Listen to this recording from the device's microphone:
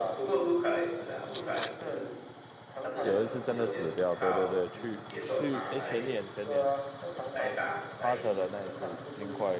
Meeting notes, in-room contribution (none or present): present